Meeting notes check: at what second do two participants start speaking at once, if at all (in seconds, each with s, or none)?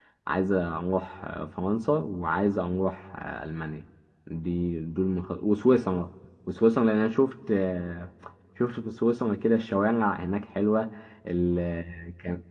none